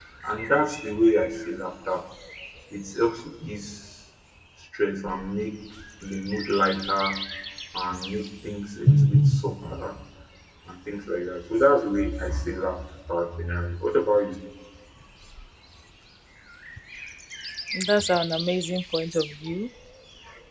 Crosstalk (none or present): none